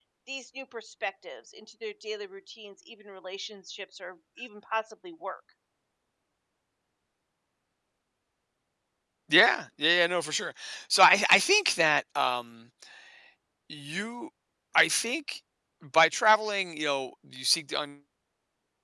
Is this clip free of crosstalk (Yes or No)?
Yes